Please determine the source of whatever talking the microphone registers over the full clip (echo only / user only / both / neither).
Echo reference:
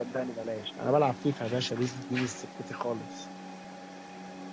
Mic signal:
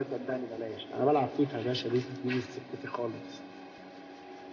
echo only